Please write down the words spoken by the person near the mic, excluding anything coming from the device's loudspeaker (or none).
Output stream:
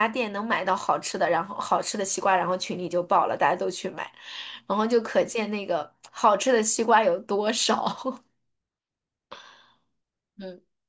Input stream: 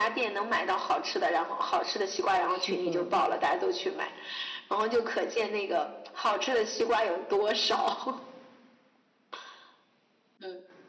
是的，